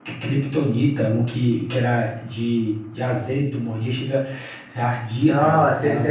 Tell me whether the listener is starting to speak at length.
Yes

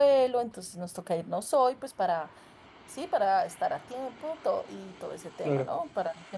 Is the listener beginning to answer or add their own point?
No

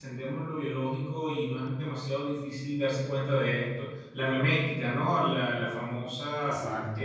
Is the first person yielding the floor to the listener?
No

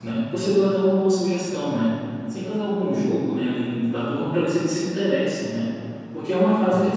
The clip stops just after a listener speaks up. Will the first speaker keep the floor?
Yes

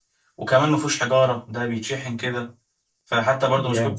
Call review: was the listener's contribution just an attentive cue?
Yes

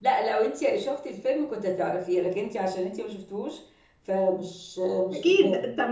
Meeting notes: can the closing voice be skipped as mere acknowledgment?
No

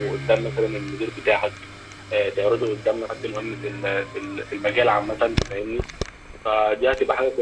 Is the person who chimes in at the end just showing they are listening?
Yes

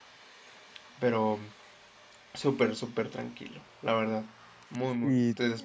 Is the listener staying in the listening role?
No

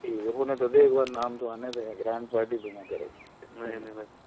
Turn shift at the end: Yes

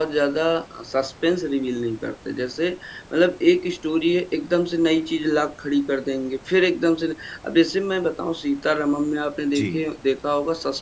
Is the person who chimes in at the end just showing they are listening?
Yes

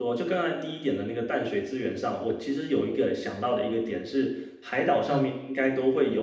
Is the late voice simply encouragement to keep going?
Yes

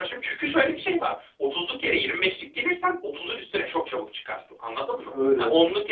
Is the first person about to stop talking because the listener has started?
No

